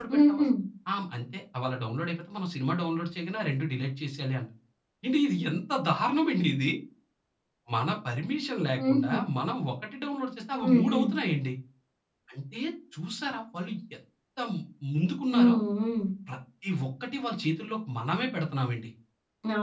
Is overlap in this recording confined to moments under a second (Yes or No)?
Yes